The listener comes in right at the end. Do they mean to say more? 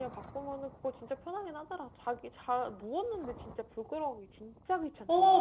Yes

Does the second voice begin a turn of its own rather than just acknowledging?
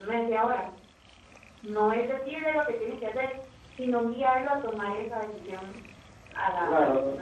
Yes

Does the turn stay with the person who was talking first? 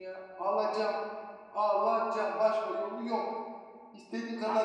Yes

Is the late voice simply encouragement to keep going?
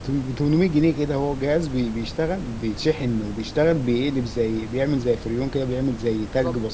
No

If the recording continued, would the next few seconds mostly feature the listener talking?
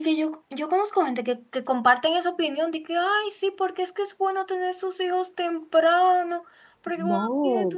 No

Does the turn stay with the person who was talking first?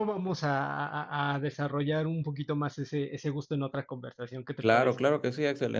No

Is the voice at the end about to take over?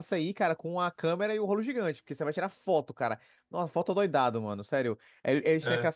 No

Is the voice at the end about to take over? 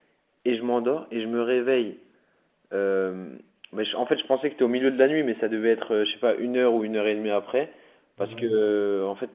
No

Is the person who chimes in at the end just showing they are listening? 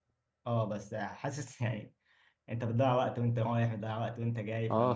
No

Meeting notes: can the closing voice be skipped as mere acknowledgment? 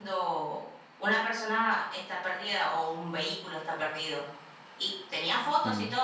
Yes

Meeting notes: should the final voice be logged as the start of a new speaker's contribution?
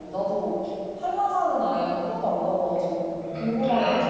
Yes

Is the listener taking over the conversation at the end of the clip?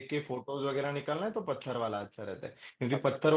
No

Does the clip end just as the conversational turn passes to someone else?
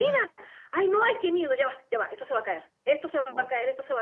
No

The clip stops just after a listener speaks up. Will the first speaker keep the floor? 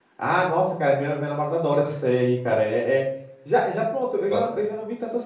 Yes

